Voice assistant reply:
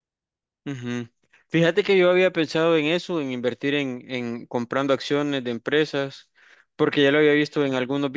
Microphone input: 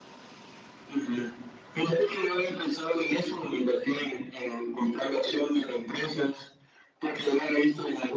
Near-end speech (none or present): none